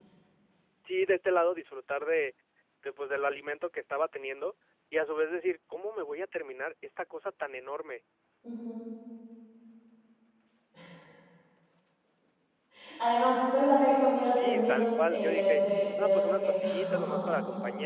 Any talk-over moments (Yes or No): Yes